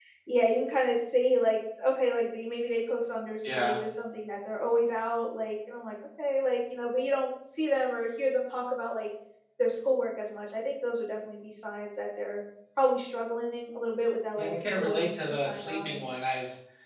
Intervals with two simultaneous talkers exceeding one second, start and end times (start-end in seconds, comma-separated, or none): 14.4-16.2